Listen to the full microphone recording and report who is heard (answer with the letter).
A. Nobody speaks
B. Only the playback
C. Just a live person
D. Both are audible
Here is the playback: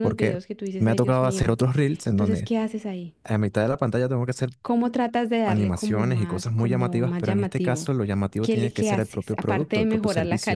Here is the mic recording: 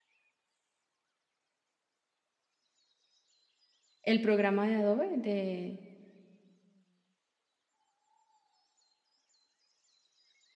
C